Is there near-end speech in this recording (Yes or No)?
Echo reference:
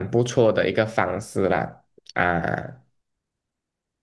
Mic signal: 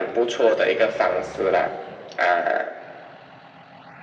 No